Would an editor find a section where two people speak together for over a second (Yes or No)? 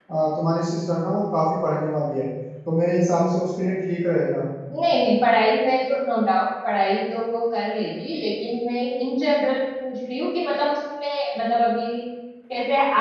No